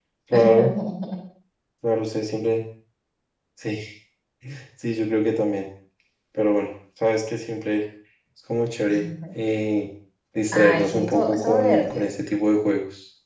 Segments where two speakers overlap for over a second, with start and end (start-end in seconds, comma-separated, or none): 10.5-12.0